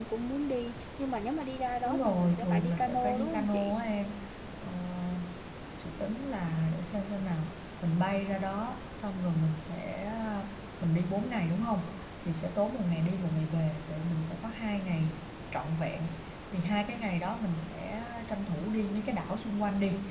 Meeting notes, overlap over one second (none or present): present